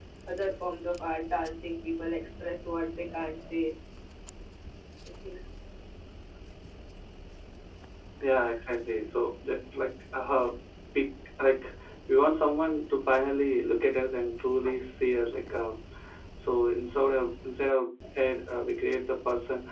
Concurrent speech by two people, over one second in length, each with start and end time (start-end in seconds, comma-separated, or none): none